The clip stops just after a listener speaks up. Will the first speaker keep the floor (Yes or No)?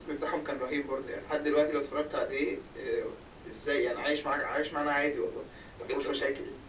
No